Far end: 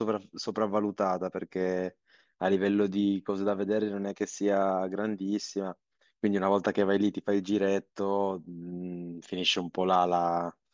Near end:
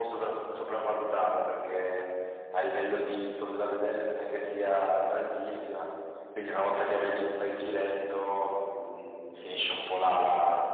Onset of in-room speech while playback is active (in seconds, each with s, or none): none